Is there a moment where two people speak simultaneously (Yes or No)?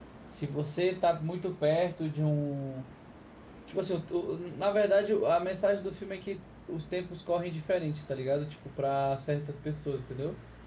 No